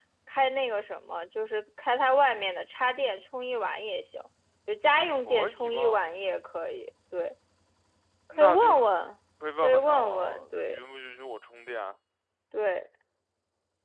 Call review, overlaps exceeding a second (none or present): present